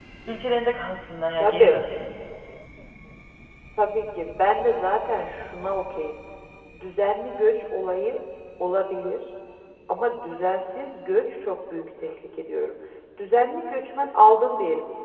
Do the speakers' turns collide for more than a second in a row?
No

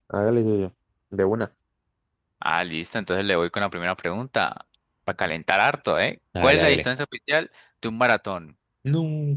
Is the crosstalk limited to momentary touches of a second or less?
Yes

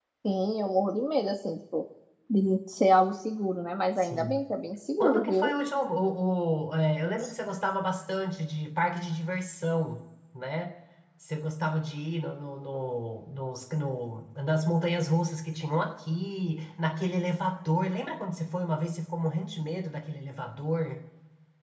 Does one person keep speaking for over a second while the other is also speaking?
No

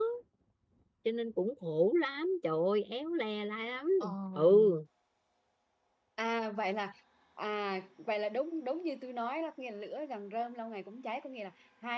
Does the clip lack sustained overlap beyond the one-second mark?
Yes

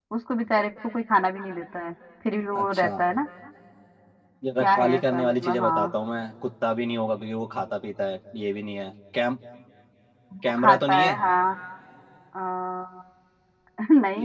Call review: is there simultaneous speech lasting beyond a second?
Yes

